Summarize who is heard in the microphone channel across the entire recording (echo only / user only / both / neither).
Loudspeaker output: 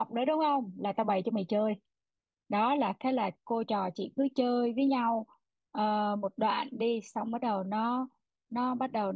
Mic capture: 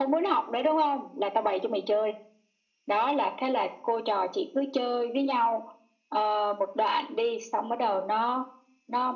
echo only